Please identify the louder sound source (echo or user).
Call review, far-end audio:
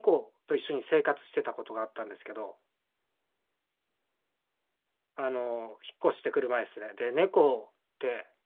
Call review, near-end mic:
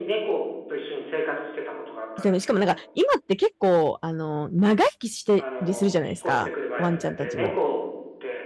user